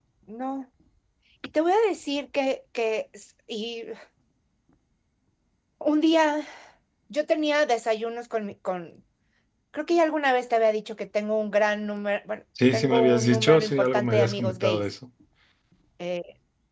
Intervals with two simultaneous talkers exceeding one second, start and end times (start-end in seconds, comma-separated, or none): 12.7-14.8